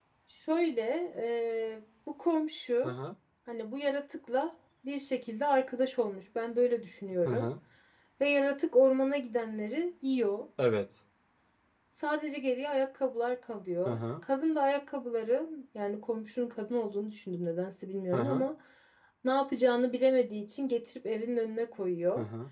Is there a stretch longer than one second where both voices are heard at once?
No

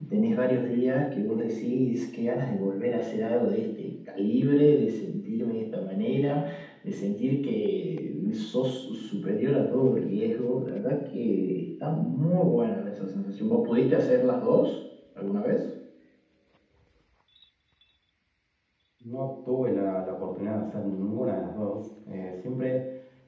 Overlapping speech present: No

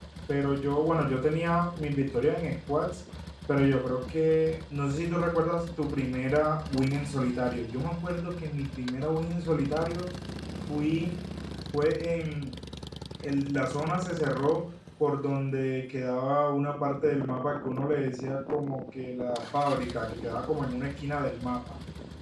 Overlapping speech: No

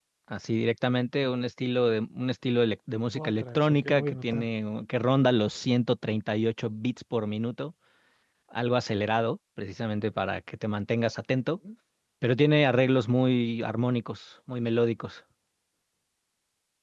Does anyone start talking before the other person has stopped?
Yes, from 3.1 s

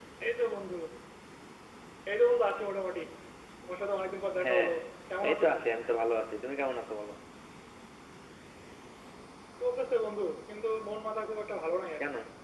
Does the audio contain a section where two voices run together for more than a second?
No

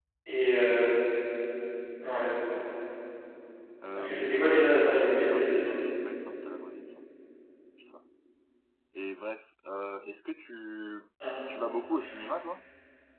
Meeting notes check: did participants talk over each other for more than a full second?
Yes, from 3.9 s

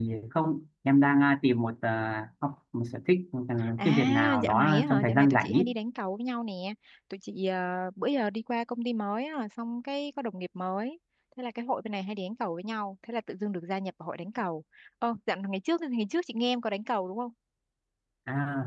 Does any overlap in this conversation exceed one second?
Yes, from 3.6 s

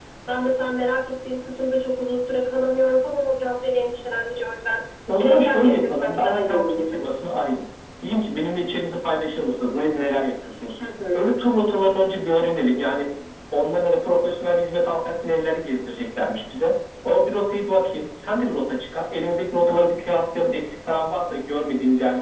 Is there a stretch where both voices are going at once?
Yes, from 5.2 s

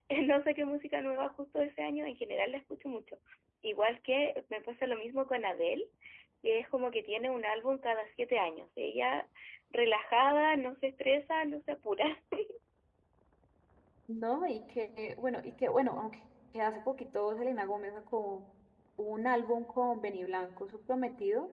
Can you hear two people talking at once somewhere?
No

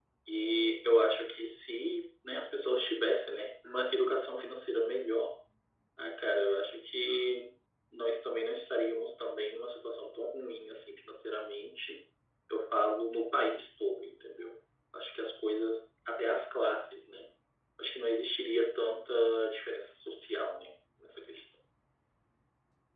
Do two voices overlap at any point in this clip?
No

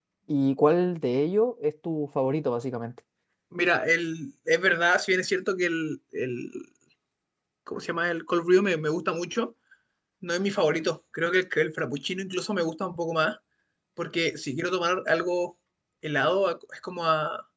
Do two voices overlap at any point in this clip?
No

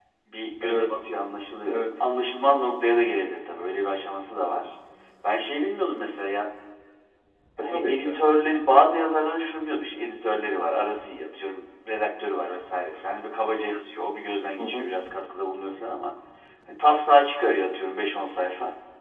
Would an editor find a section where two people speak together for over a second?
No

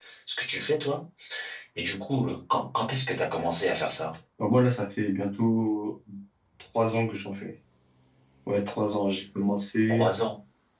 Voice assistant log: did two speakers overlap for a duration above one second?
No

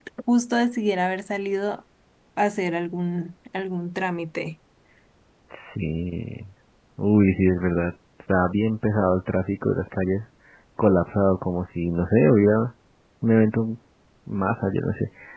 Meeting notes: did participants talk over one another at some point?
No

